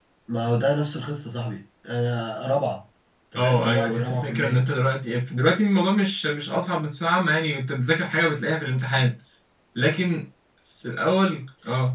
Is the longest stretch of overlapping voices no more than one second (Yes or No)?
No